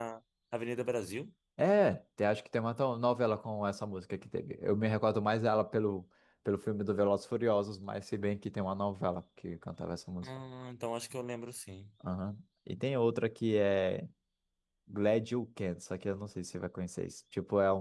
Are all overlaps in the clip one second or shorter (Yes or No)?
Yes